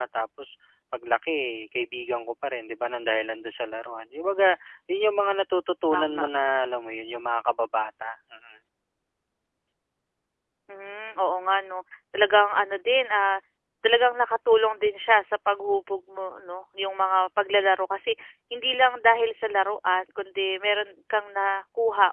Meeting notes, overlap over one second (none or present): none